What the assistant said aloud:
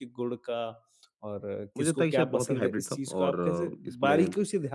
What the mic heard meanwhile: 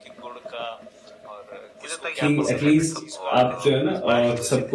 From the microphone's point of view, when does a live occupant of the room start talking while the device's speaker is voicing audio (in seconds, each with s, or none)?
2.2 s